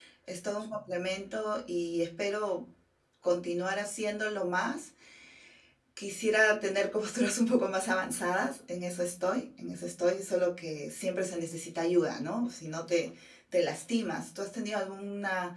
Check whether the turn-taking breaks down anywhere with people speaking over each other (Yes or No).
No